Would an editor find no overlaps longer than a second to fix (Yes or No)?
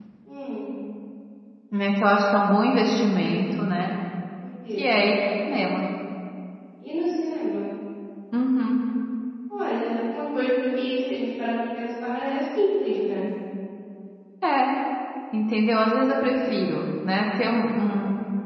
Yes